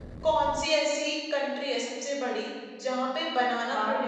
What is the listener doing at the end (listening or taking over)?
listening